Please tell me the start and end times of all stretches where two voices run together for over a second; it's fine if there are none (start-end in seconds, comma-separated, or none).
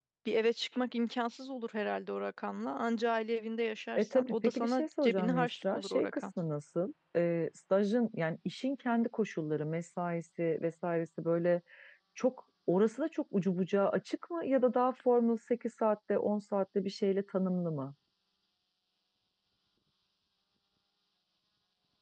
4.0-6.2